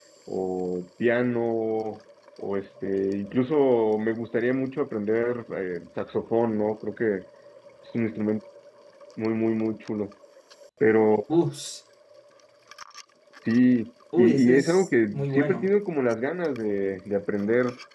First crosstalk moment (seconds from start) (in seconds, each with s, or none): 14.2 s